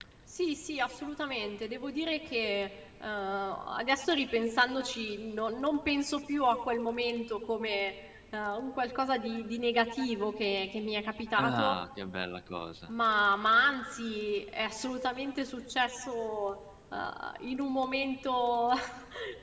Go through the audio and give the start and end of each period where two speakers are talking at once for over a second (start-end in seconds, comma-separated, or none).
none